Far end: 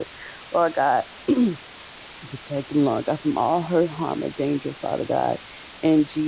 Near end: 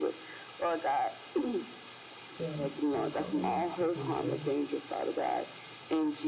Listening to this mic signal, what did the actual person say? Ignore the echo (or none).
You are a covenant keeping God.